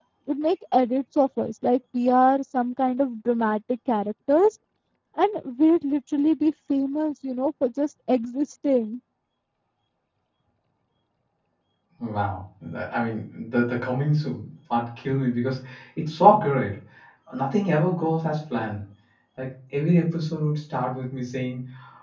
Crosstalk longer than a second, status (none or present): none